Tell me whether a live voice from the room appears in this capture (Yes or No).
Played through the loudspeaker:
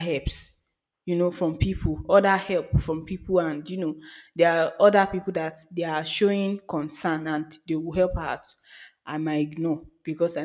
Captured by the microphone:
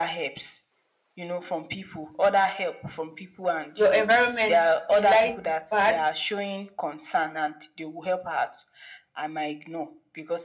Yes